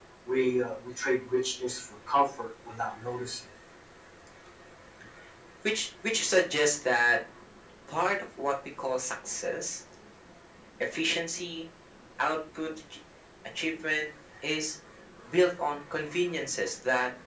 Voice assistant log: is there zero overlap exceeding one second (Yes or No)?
Yes